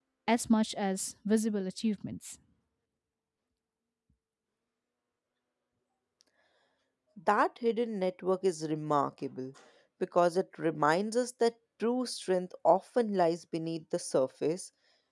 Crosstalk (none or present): none